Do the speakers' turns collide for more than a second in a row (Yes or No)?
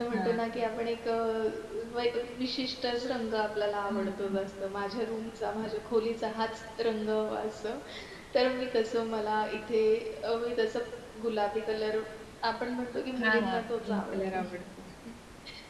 Yes